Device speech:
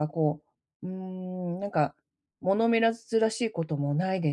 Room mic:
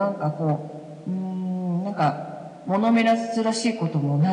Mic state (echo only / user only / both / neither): echo only